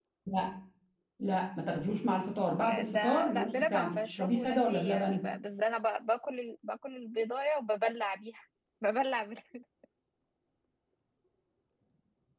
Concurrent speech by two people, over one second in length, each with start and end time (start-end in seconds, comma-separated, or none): 2.6-5.2